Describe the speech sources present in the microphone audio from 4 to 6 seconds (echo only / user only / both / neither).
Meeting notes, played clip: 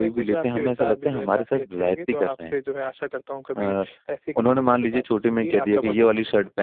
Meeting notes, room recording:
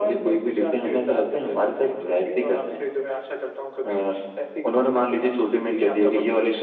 echo only